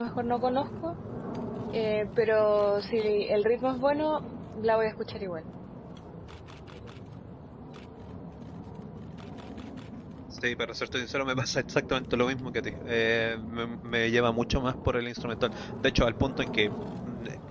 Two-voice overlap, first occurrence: none

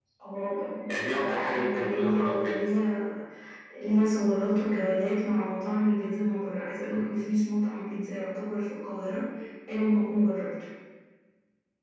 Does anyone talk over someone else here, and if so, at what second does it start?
1.2 s

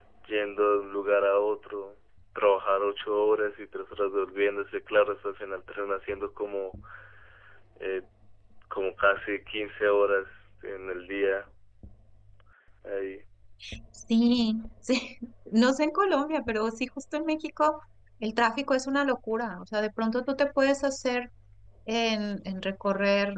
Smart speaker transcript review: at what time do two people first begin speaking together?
none

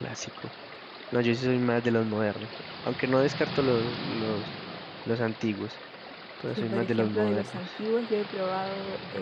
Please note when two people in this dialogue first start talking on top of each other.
6.6 s

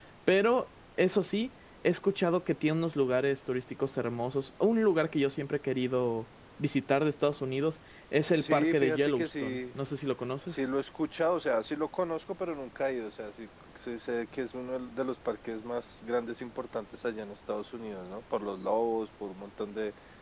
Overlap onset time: 8.4 s

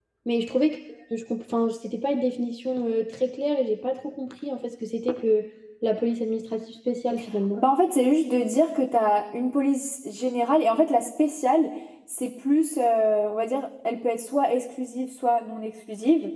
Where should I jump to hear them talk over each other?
none

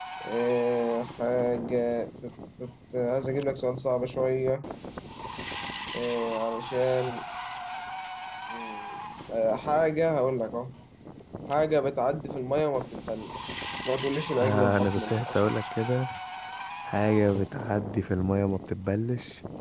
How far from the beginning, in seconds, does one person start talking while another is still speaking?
14.4 s

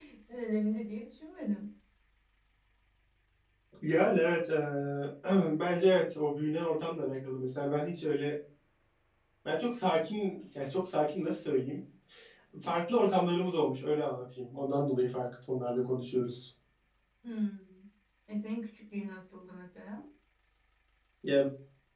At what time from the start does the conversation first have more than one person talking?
none

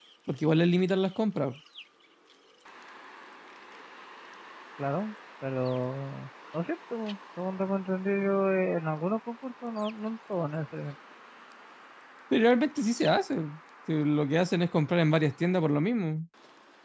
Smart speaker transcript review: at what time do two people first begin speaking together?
none

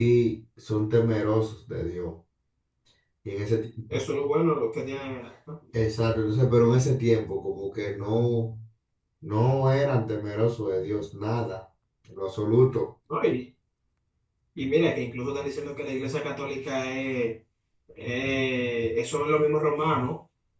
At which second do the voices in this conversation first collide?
none

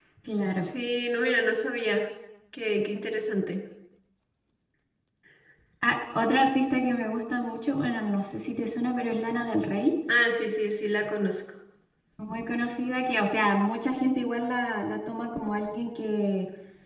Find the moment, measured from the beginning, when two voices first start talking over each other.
none

